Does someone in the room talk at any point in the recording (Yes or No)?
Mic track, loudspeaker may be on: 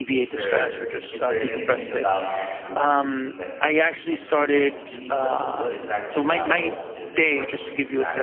Yes